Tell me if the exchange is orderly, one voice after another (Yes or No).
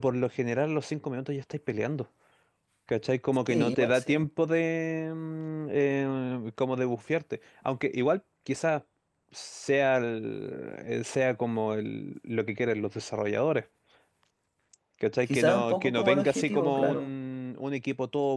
No